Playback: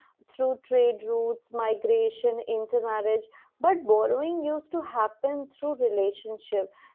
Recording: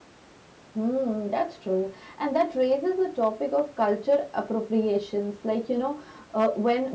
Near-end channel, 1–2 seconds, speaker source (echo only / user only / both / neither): user only